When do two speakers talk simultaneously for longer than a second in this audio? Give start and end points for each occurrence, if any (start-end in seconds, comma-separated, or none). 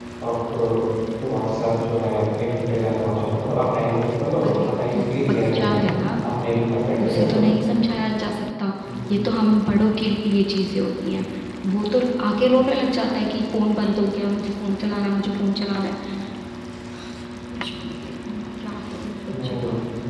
4.4-5.9